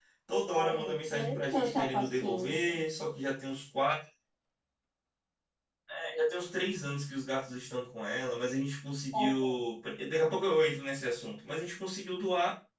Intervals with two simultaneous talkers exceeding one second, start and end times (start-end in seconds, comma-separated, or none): 0.6-2.8